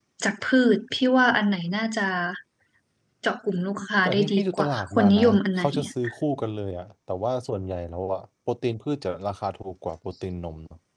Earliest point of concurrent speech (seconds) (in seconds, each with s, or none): 4.0 s